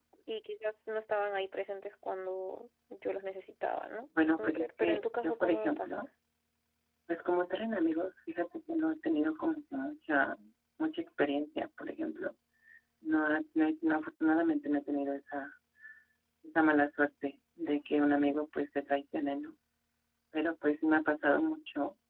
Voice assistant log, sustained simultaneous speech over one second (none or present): present